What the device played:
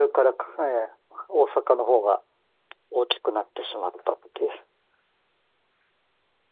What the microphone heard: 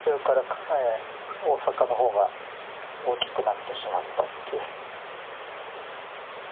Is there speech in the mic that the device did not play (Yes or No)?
No